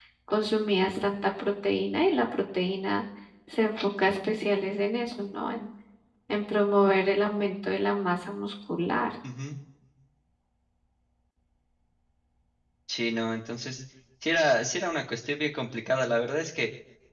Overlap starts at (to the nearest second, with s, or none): none